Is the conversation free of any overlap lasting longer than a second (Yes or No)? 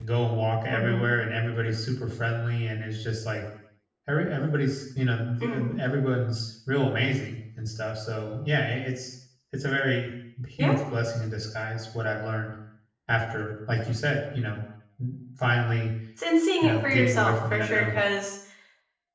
No